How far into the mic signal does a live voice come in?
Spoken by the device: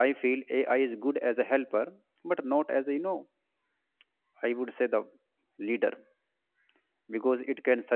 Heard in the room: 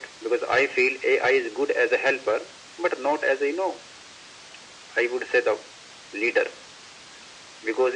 none

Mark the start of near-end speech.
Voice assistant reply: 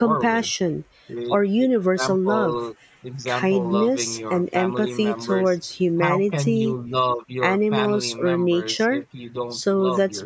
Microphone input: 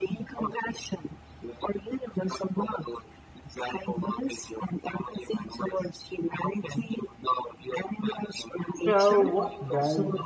8.7 s

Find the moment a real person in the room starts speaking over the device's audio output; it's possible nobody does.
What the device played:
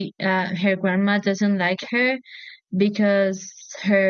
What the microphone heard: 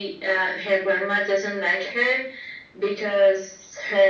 none

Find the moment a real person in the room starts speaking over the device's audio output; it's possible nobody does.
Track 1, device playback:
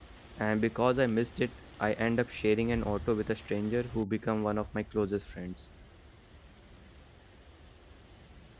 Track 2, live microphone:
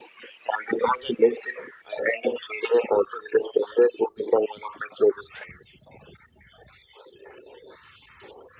none

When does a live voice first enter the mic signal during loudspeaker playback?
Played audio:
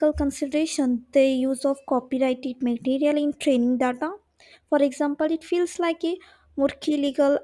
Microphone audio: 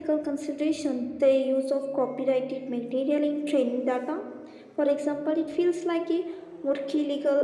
none

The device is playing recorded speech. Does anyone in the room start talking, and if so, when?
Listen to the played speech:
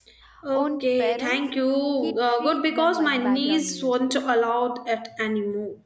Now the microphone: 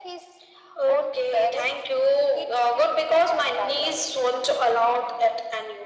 none

